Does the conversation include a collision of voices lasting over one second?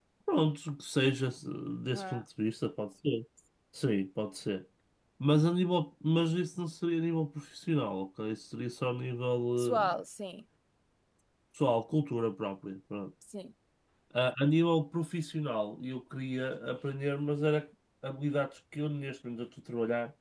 No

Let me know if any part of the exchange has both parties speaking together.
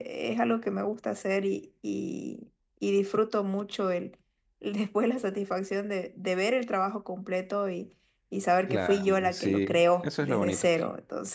Yes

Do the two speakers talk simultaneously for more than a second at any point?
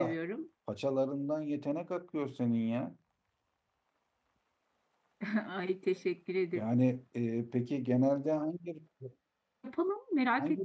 No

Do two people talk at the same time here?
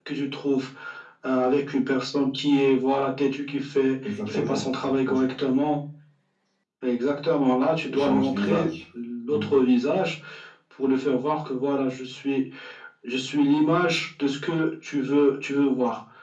Yes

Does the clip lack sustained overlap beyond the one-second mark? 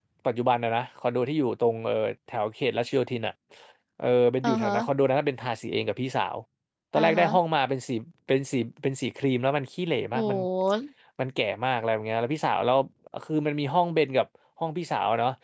Yes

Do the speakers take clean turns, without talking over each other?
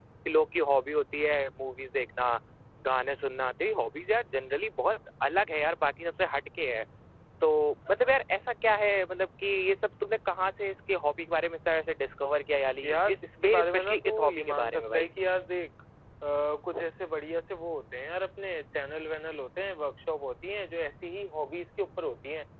No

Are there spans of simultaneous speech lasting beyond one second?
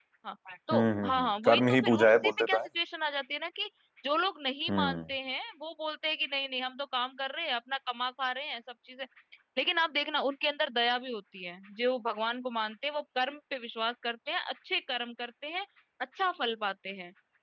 Yes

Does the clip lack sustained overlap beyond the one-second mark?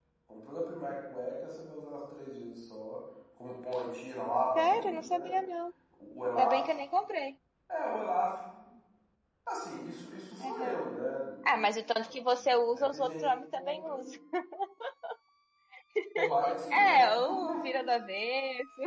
No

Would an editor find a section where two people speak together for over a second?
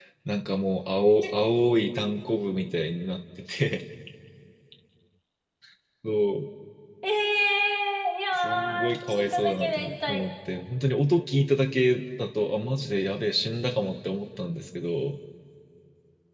Yes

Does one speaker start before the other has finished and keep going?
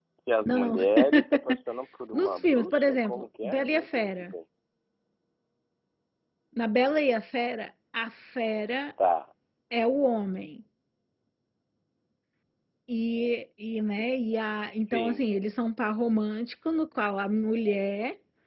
Yes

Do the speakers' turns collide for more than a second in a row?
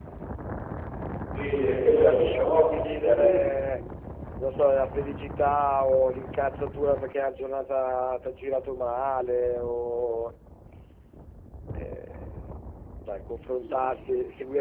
Yes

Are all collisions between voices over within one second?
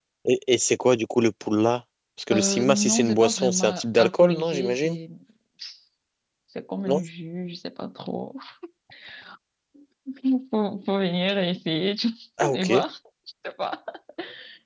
No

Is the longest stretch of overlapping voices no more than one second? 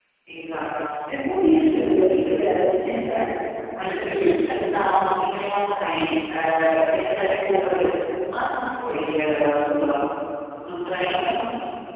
No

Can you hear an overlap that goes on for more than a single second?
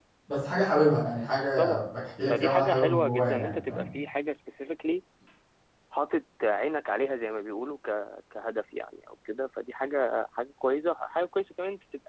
Yes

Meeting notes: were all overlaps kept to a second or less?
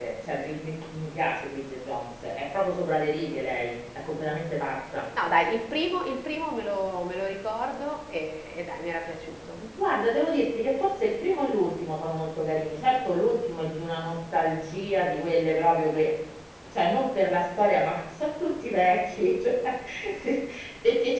Yes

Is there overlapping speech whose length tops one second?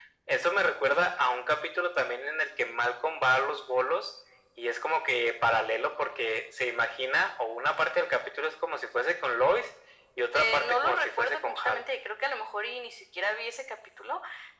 Yes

